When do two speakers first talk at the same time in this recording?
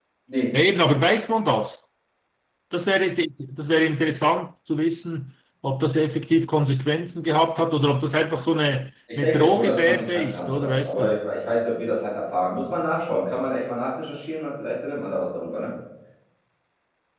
9.1 s

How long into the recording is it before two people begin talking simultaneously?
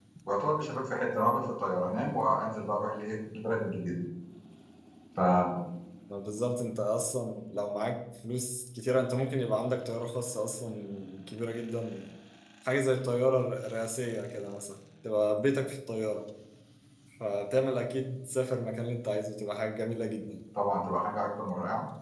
none

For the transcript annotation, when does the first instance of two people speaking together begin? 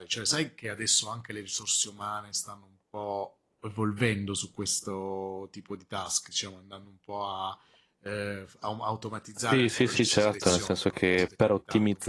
9.5 s

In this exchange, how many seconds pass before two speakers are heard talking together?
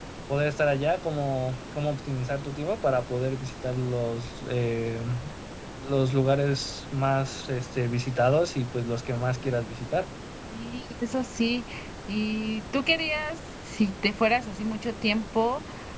none

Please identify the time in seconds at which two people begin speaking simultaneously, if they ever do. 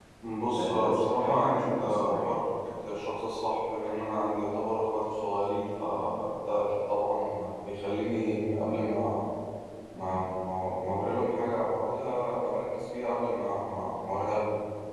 0.6 s

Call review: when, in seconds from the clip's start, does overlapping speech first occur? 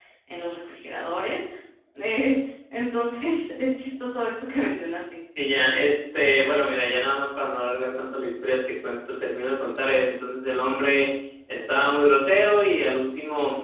none

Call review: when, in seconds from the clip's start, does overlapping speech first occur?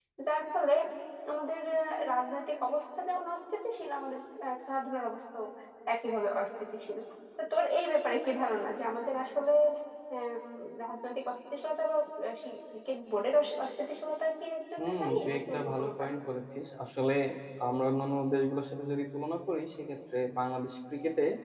14.8 s

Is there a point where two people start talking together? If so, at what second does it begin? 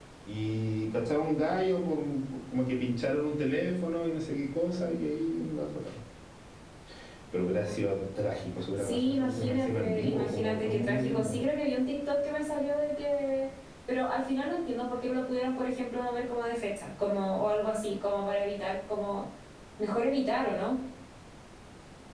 8.8 s

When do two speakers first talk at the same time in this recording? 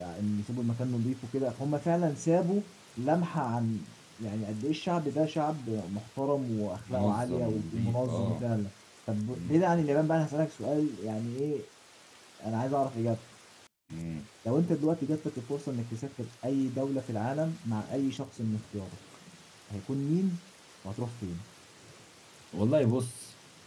6.8 s

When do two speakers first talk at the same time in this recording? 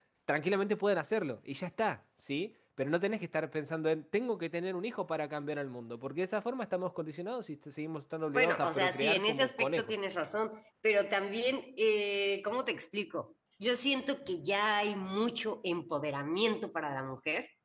8.3 s

